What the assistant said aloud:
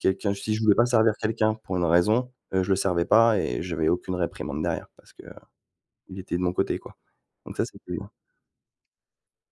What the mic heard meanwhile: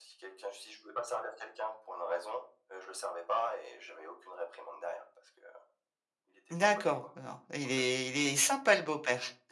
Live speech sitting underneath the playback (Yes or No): No